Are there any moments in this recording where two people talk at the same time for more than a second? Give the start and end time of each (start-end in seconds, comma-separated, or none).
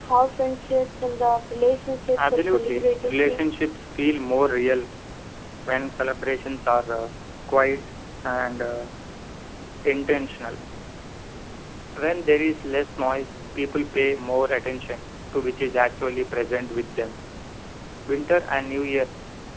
2.2-3.4